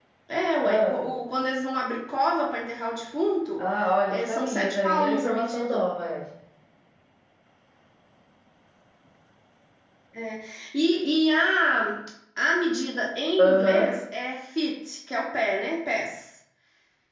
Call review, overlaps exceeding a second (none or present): present